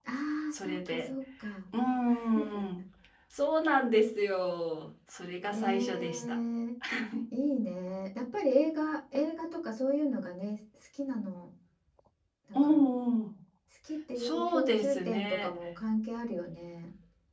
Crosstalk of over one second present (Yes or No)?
Yes